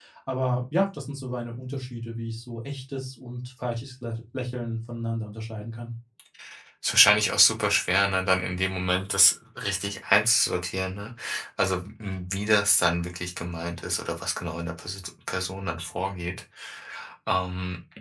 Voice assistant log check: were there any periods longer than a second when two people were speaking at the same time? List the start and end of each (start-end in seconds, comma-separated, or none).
none